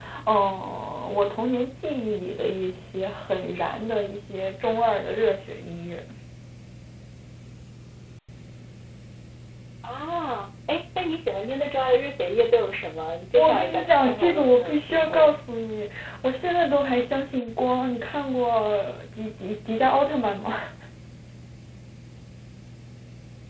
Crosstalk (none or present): present